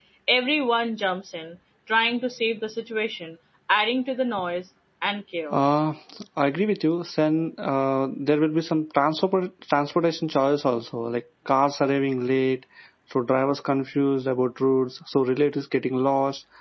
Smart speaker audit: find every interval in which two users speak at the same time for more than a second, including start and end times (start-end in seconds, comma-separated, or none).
none